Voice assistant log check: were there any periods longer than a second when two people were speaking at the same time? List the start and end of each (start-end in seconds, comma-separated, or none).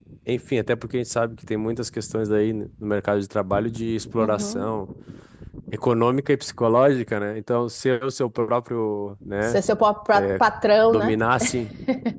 none